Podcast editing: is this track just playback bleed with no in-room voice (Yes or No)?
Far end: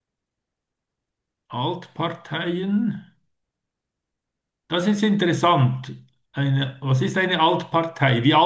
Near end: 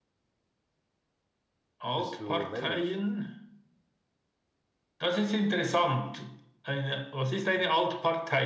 No